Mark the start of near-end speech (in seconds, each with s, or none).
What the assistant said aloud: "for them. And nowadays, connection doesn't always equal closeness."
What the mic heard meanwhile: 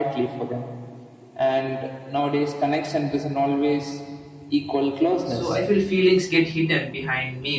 5.2 s